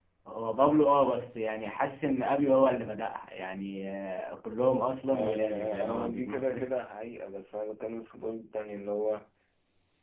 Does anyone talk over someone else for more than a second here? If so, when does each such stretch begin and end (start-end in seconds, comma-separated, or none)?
5.1-6.7